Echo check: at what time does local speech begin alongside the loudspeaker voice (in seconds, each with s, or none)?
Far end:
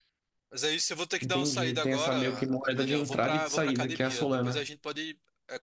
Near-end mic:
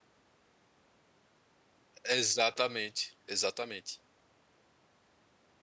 2.1 s